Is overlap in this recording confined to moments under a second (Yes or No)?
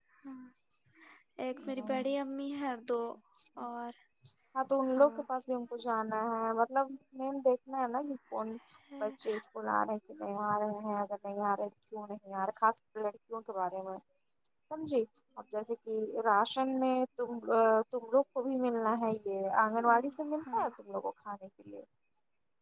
Yes